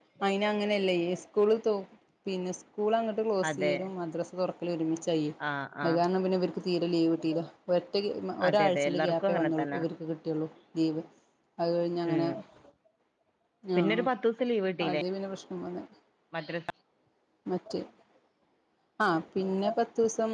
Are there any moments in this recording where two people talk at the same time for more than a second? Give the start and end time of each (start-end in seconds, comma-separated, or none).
8.5-9.8